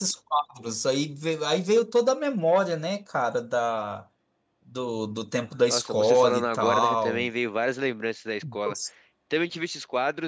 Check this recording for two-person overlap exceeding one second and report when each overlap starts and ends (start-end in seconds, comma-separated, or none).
5.7-7.3